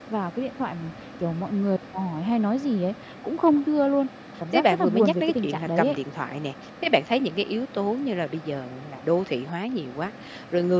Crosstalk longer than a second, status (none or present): present